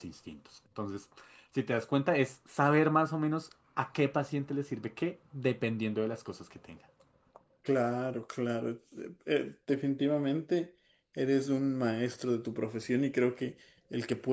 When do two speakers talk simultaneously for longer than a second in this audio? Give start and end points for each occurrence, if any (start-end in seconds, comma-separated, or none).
none